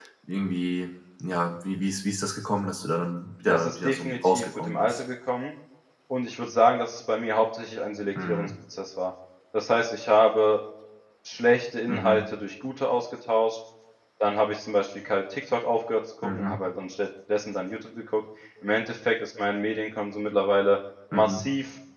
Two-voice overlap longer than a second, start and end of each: 3.5-5.0

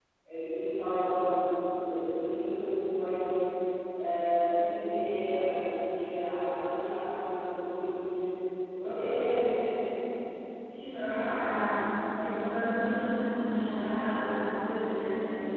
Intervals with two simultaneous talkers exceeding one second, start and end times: none

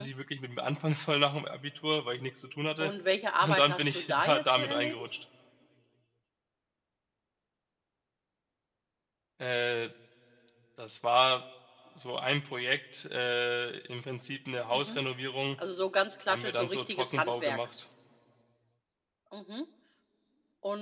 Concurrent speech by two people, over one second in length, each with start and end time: 3.4-5.1, 16.3-17.6

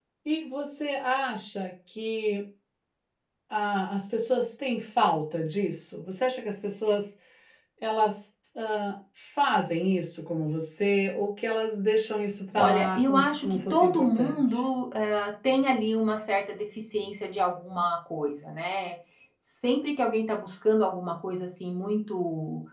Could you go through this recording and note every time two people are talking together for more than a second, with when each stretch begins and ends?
12.6-14.6

